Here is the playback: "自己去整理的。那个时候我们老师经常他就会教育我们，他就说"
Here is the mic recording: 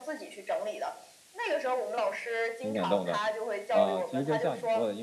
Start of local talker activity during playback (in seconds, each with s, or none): 2.6 s